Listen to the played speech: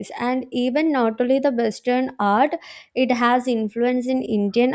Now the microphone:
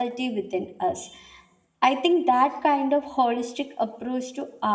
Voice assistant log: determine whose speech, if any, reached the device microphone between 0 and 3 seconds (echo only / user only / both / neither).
user only